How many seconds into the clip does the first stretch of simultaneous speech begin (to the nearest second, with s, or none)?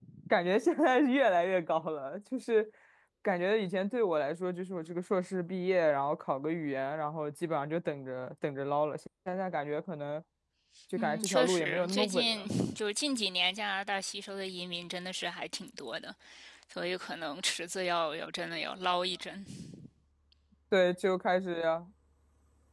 11 s